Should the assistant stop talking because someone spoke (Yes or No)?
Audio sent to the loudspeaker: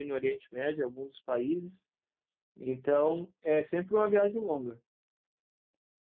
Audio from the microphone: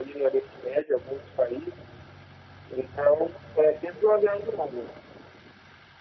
No